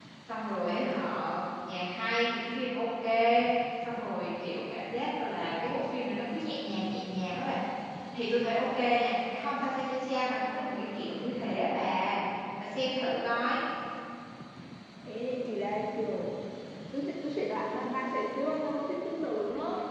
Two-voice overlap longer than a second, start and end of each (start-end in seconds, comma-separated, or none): none